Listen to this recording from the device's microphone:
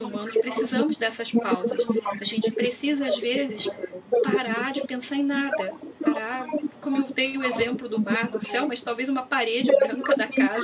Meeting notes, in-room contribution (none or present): present